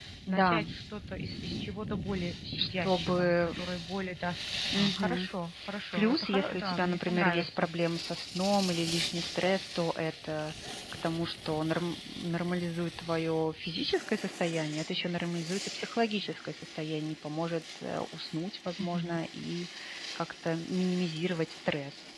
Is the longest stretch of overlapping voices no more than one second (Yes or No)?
No